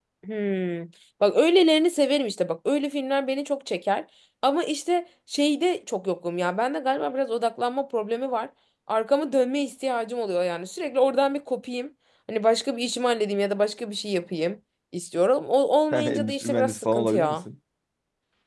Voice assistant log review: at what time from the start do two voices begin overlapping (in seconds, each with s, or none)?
15.9 s